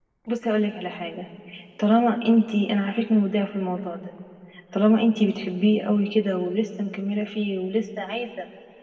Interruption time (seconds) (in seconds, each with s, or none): none